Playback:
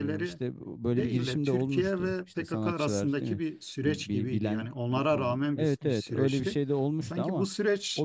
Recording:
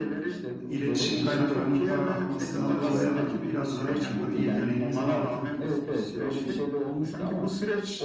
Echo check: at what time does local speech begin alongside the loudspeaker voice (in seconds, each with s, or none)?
0.7 s